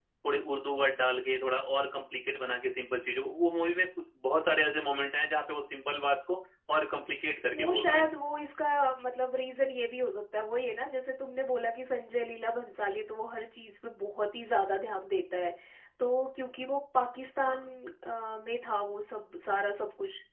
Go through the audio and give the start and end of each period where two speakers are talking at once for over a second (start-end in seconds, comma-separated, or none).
none